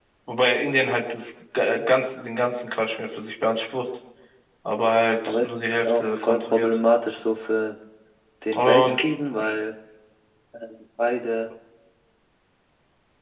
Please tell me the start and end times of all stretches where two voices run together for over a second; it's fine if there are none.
5.2-6.8

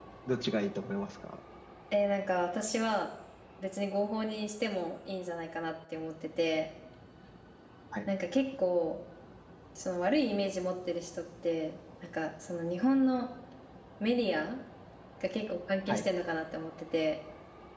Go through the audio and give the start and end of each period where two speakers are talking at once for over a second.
none

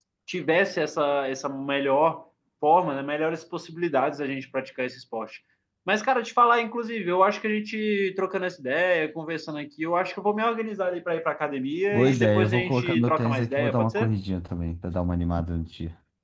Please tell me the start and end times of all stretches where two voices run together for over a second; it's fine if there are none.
11.9-14.1

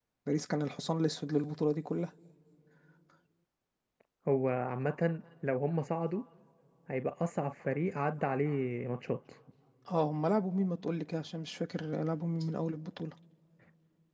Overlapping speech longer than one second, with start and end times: none

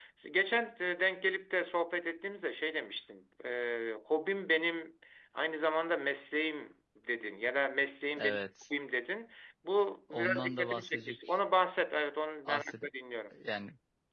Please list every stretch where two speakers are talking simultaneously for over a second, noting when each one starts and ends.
10.1-11.4

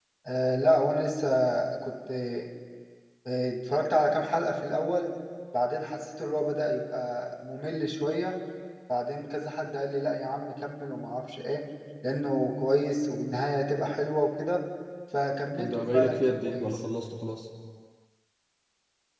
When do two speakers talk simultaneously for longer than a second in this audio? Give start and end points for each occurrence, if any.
15.6-16.8

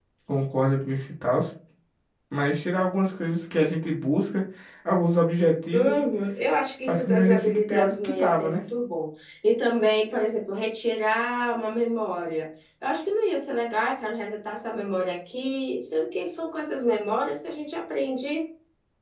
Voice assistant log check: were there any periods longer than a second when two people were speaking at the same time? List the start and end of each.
6.9-8.6

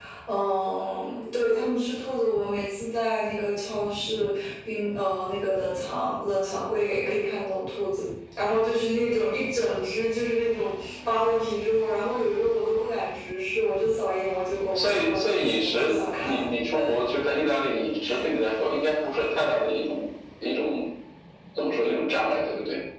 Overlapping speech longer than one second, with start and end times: 14.8-16.4

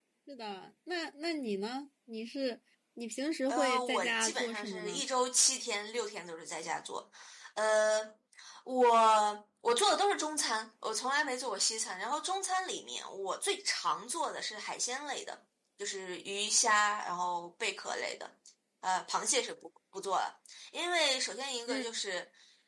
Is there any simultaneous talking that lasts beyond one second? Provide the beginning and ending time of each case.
3.5-5.0

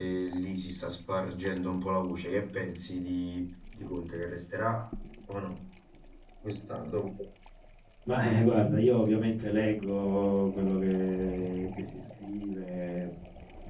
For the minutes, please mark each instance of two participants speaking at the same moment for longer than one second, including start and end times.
none

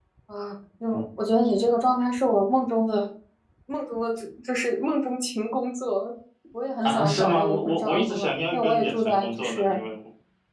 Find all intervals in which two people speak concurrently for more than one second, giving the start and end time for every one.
6.8-9.8

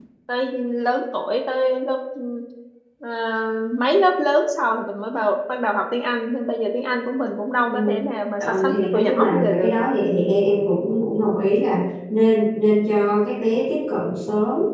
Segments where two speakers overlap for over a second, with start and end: 8.4-9.7

